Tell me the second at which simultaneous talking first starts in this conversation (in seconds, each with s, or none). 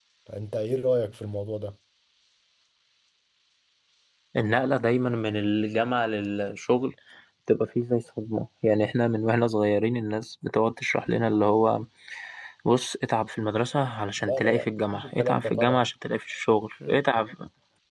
14.2 s